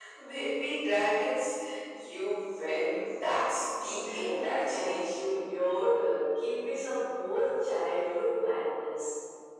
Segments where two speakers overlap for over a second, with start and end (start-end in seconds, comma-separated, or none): 4.0-5.3